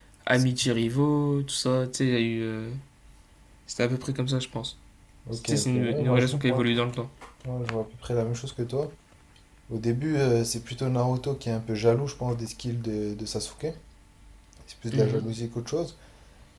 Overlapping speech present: Yes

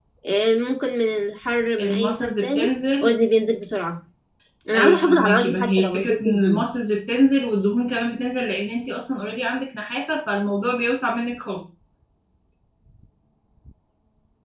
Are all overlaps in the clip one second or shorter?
No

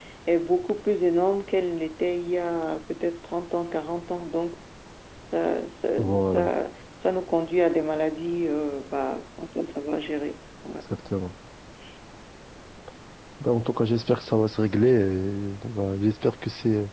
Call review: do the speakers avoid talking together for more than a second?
Yes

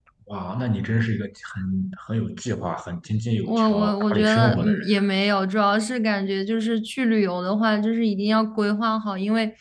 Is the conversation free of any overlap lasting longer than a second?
No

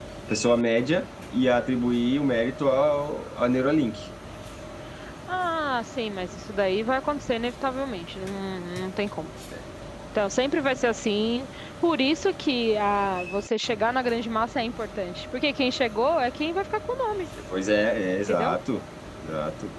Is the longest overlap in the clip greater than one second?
No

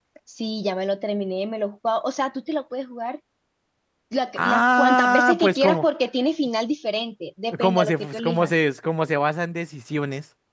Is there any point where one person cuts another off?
Yes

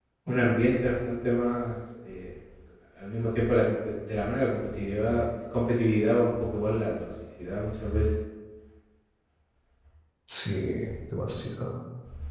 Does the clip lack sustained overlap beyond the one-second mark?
Yes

